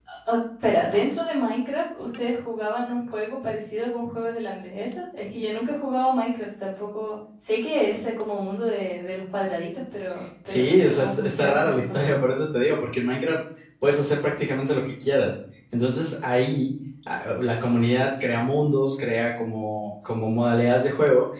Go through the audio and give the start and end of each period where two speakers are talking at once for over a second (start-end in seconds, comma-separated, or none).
10.5-12.0